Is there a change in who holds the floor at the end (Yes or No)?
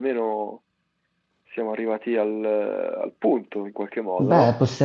Yes